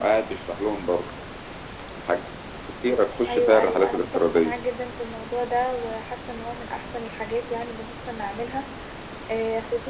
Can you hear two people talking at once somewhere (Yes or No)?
Yes